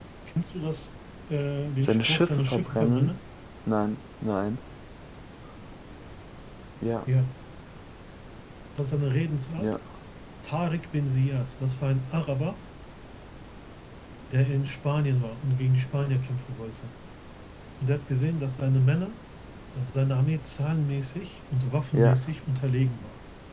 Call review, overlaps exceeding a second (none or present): present